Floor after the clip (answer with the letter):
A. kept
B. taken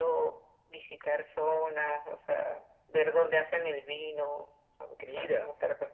B